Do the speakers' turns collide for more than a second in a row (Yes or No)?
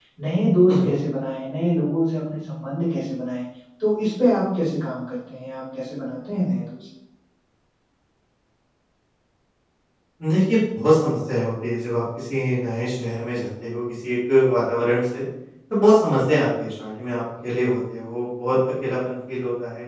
No